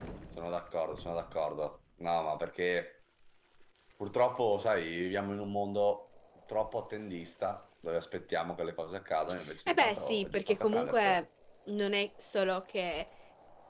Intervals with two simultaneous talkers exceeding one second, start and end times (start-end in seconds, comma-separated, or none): 9.7-11.2